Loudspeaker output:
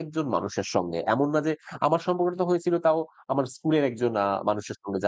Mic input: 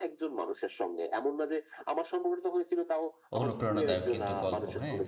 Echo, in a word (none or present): present